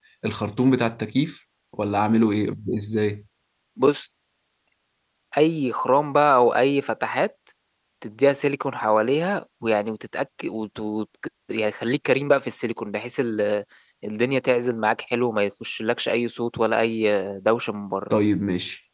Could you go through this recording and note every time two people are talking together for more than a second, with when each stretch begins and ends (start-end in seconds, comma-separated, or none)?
none